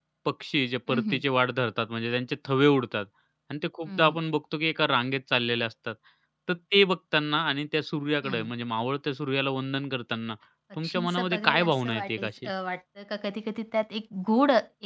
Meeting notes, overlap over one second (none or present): present